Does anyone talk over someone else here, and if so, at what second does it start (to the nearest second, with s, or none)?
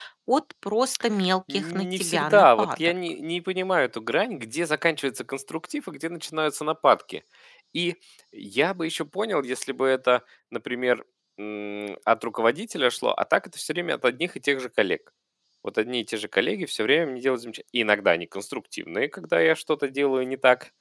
1 s